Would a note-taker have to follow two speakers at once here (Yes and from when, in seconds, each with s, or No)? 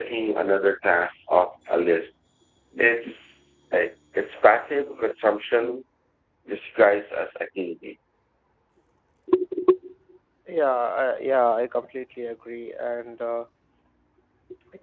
No